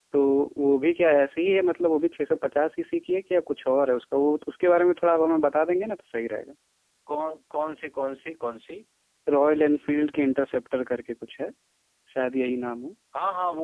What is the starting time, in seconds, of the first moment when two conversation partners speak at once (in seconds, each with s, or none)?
none